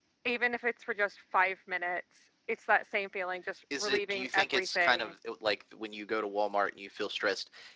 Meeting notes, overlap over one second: present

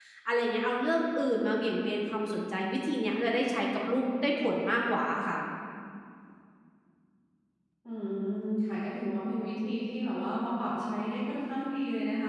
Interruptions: none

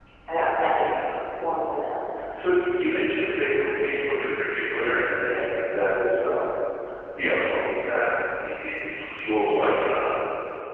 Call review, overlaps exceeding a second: none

